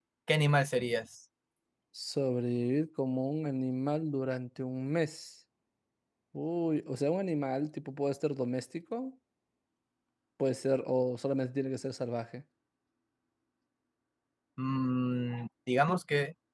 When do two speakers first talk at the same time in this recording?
none

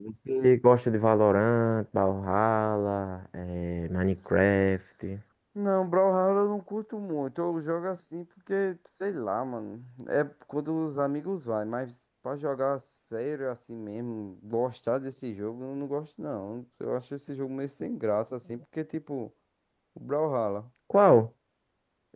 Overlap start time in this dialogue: none

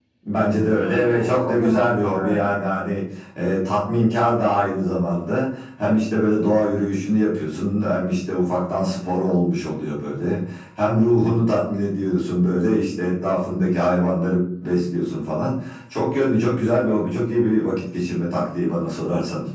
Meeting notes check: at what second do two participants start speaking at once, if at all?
0.8 s

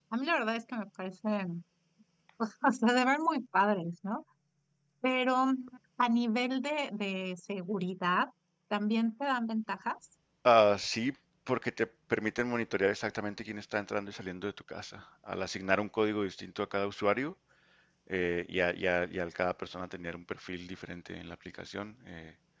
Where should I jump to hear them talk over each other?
none

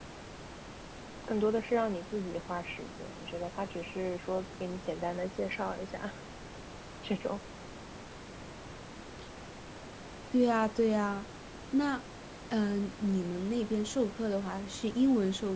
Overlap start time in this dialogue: none

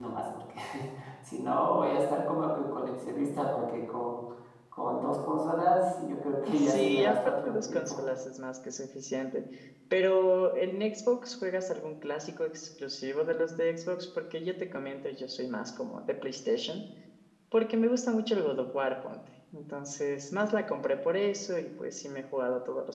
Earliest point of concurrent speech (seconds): 6.4 s

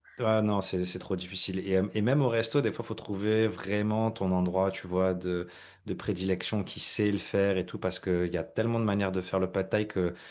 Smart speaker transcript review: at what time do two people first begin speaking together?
none

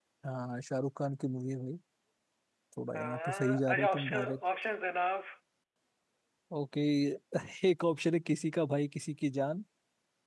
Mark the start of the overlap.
3.0 s

